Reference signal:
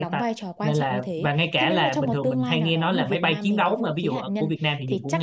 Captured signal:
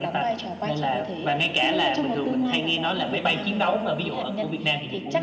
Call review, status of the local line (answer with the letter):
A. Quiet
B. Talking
A